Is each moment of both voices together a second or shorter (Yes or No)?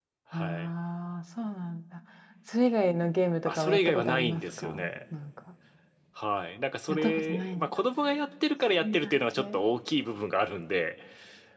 No